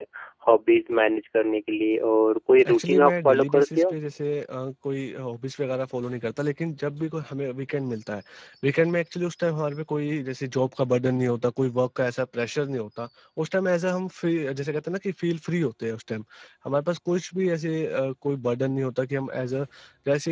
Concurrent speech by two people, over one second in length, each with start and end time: 2.7-3.9

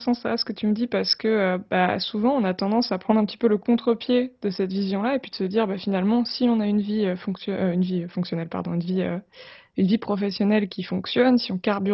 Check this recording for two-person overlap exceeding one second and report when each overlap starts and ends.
none

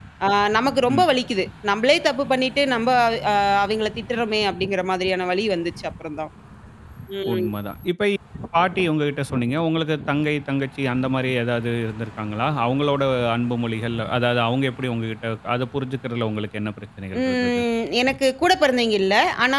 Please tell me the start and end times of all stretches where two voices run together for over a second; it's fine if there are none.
none

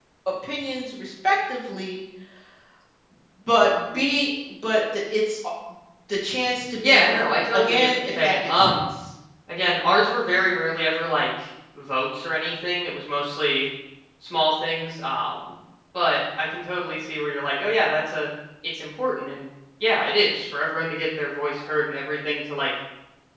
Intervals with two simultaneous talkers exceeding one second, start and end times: 6.8-8.7

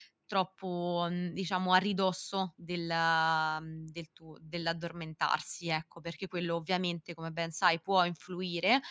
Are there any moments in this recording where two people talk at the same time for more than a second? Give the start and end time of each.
none

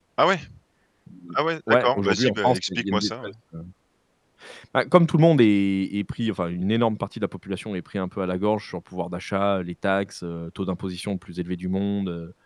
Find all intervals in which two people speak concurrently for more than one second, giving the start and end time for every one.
1.7-3.3

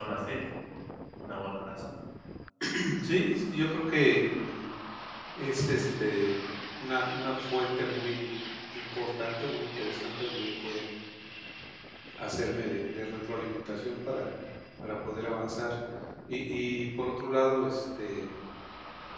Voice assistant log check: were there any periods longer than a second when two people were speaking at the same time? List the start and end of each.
none

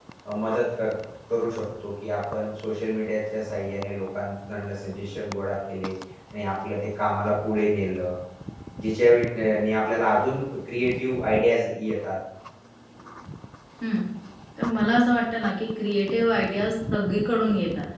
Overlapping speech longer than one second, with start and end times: none

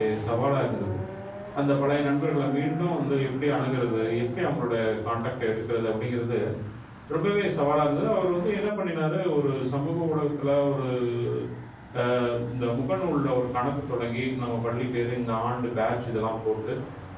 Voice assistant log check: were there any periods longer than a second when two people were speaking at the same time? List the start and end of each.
none

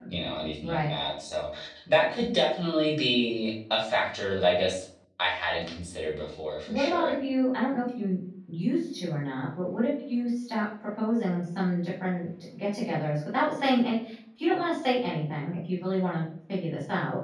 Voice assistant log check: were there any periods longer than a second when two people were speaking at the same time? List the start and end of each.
none

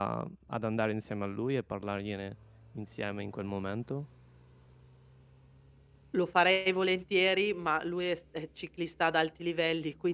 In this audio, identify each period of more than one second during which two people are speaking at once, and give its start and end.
none

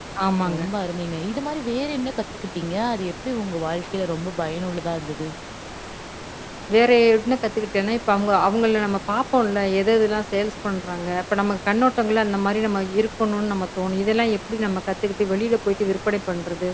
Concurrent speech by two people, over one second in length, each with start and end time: none

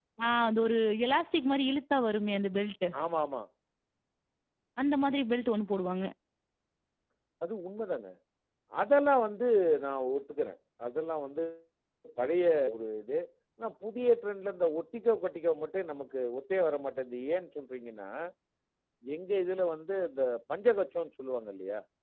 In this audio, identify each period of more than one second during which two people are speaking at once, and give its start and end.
none

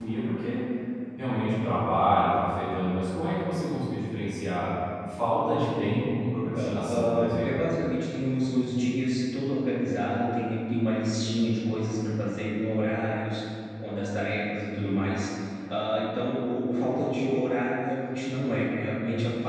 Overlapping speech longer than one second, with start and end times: 6.4-7.6

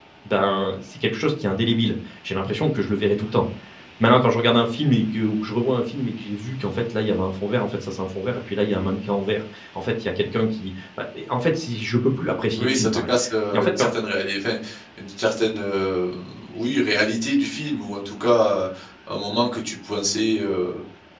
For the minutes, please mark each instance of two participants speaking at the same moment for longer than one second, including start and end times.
none

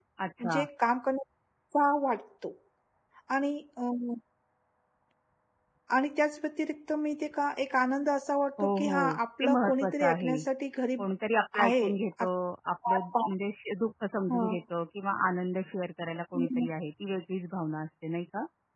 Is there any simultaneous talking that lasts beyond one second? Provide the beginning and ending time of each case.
8.6-10.3

